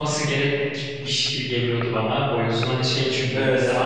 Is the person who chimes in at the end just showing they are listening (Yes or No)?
Yes